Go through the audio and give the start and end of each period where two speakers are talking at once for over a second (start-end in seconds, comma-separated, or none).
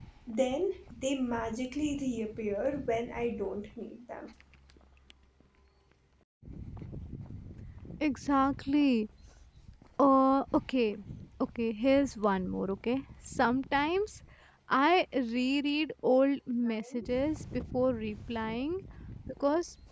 none